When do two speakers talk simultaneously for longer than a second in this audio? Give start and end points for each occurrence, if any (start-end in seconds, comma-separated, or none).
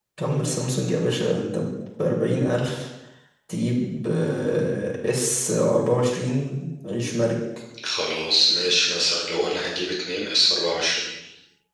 none